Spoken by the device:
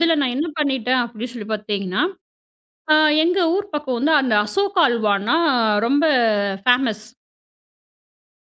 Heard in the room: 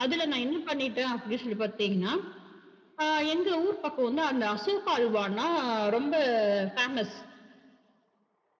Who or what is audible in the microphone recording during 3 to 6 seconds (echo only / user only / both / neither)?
echo only